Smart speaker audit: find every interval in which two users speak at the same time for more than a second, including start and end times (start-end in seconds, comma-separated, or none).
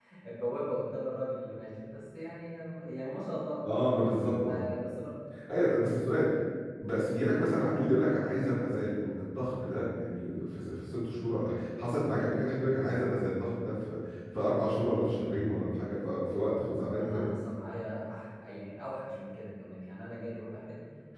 none